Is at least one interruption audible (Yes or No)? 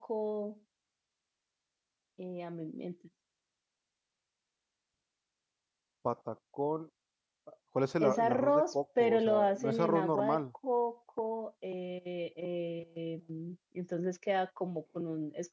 Yes